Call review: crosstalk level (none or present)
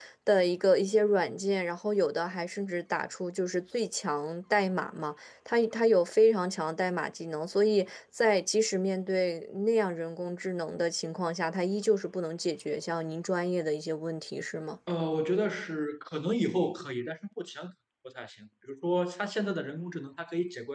none